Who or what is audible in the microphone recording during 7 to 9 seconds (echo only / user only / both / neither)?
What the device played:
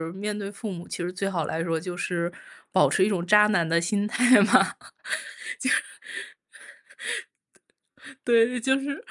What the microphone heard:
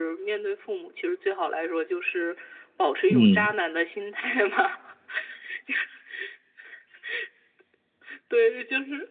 echo only